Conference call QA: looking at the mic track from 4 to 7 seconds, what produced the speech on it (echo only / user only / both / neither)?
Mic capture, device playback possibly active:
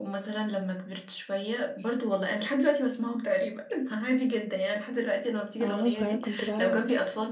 both